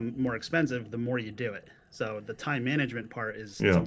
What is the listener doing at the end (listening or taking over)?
listening